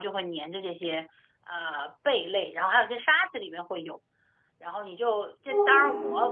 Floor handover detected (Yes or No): No